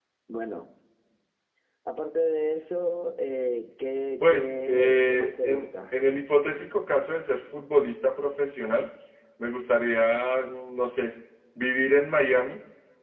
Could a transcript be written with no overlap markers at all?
No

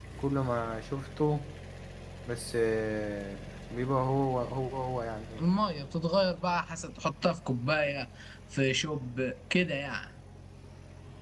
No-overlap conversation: Yes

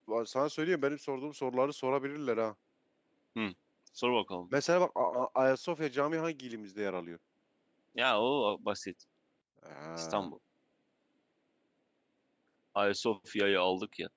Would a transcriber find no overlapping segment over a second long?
Yes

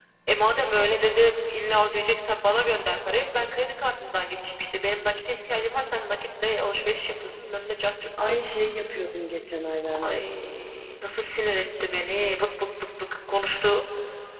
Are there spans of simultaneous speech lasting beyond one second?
No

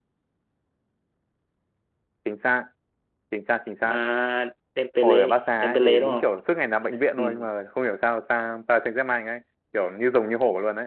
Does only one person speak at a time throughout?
No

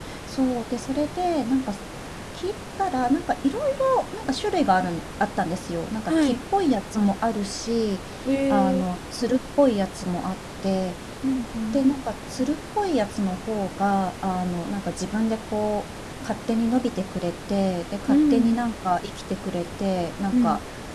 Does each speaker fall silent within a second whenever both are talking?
Yes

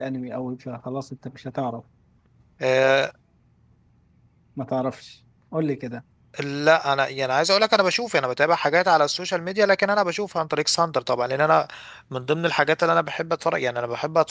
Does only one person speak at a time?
Yes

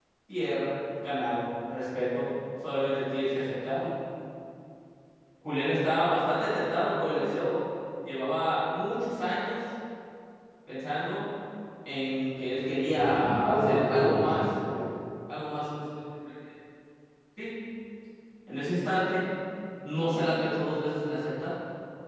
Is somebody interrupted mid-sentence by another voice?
Yes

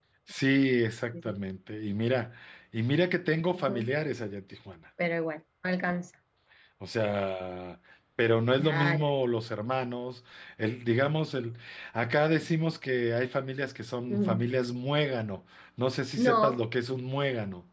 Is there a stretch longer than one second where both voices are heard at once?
No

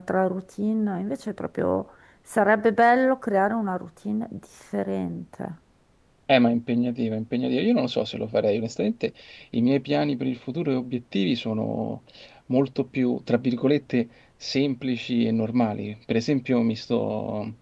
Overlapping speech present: No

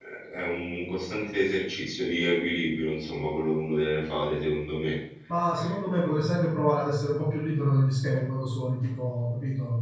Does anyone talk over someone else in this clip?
No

